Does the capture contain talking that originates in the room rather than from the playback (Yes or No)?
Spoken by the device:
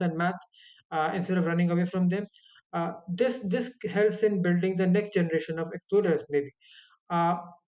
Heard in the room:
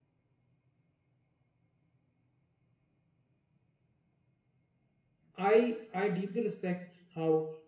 Yes